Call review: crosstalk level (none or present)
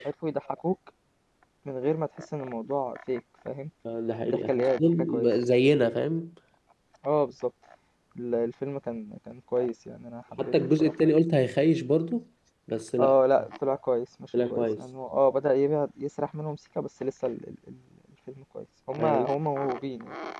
present